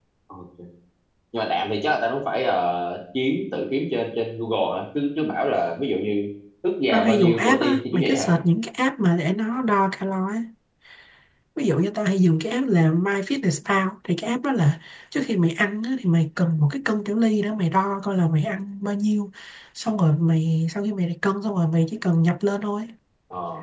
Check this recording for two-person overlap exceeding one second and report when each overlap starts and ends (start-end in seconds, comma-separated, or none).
6.9-8.3